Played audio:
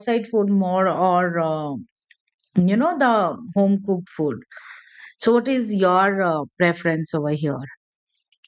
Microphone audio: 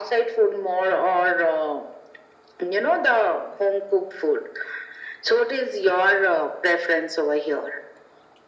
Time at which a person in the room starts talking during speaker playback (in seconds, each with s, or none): none